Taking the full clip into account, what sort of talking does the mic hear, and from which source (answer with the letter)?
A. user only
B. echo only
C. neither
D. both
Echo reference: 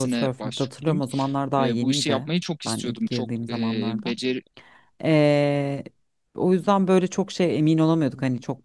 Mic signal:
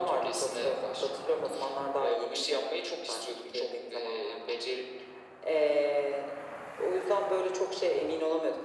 B